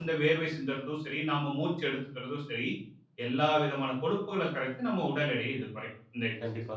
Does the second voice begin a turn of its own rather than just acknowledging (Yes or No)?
Yes